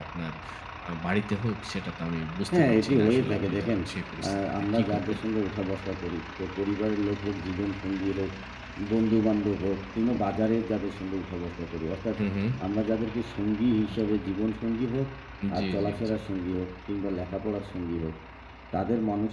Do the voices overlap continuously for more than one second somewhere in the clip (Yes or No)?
Yes